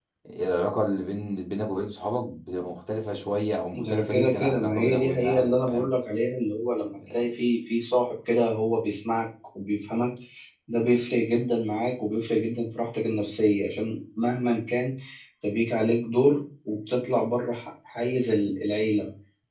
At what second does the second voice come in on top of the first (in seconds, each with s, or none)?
3.8 s